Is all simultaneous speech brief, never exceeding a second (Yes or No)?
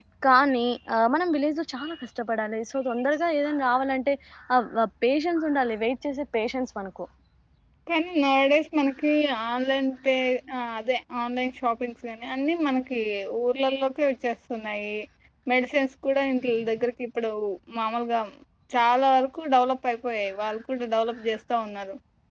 Yes